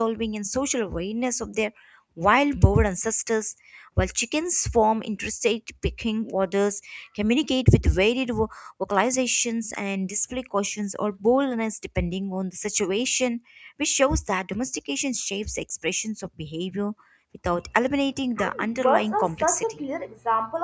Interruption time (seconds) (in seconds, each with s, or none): 18.4 s